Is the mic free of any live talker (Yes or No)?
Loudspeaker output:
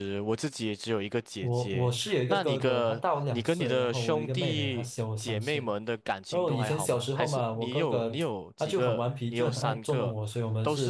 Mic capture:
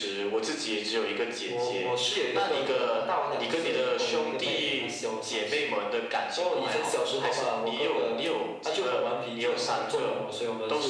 Yes